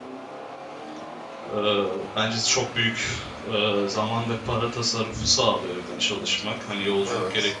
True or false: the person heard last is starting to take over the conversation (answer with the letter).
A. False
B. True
A